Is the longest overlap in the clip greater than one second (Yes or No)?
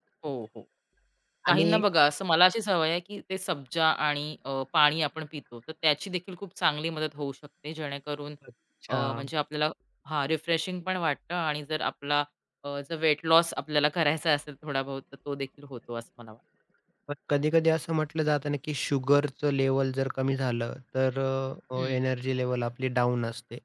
No